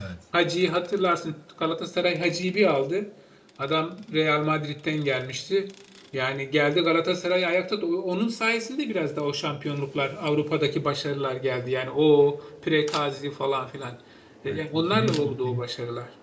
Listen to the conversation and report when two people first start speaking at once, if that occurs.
14.5 s

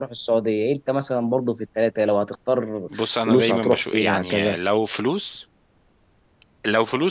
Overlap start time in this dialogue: 2.9 s

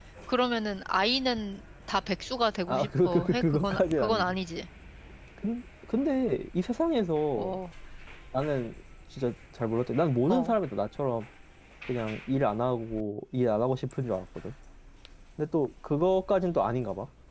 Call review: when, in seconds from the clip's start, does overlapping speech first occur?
2.7 s

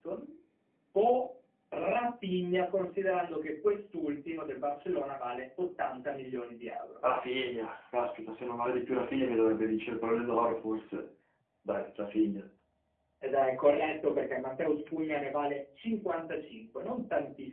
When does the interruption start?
none

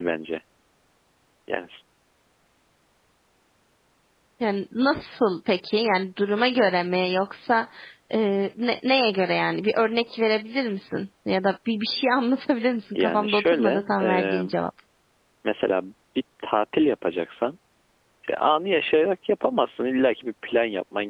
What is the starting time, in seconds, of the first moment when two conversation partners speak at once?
12.9 s

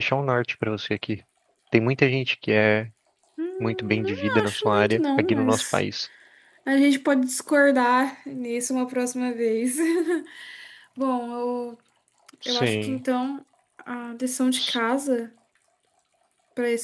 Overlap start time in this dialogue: 3.6 s

